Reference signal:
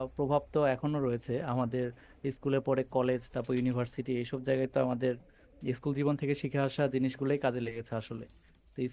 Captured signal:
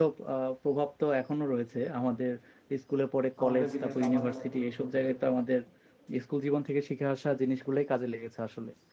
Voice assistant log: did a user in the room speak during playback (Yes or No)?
Yes